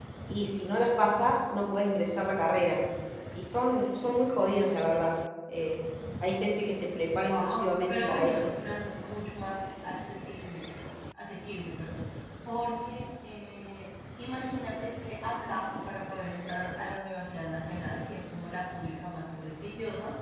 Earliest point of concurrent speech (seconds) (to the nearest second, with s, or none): 7 s